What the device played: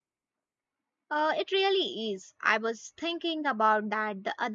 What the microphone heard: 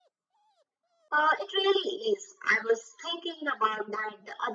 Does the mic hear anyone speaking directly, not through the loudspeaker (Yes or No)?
No